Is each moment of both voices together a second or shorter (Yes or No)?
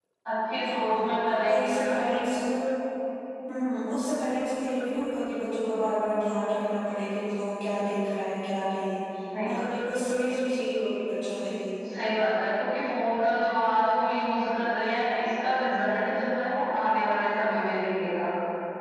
Yes